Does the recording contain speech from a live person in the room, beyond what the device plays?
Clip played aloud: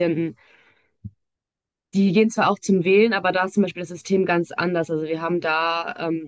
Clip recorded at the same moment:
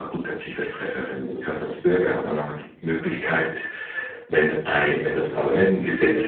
Yes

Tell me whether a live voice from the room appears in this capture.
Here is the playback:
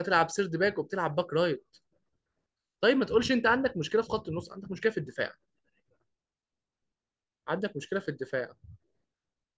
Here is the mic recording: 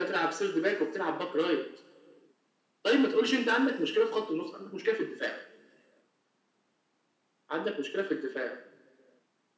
No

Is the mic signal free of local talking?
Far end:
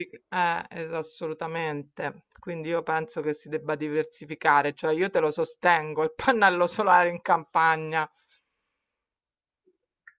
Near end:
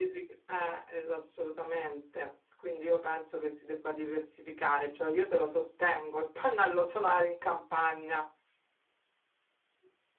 Yes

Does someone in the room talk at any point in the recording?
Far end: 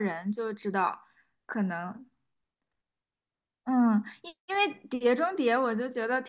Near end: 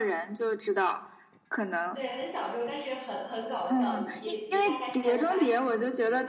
Yes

